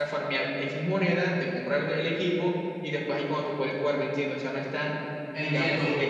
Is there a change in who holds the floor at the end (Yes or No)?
Yes